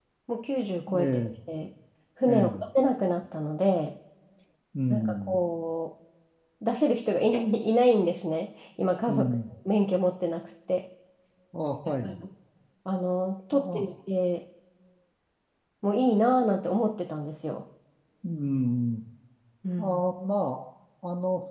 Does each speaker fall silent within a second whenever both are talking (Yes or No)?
Yes